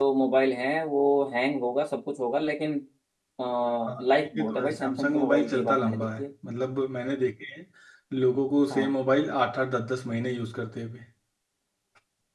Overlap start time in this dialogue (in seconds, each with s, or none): 4.1 s